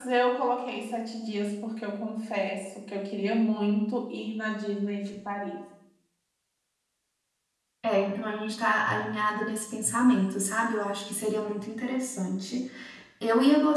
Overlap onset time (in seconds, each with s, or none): none